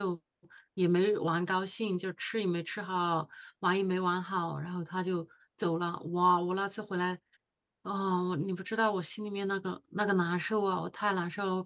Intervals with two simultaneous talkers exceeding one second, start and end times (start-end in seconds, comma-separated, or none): none